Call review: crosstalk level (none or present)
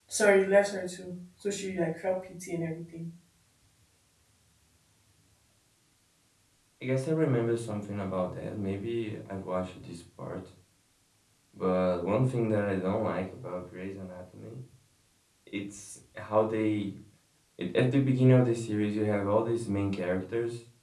none